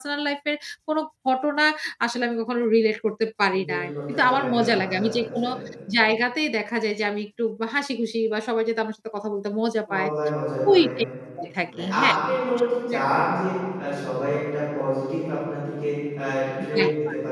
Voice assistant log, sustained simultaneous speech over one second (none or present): present